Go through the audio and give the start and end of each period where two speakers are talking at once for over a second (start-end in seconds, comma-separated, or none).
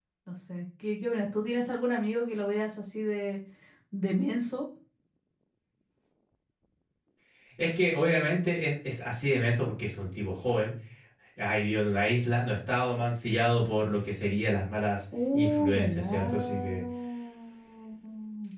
15.3-16.8